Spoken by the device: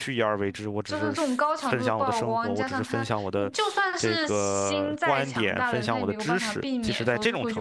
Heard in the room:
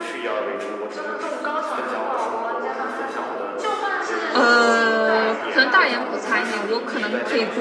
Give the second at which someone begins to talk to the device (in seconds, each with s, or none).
4.3 s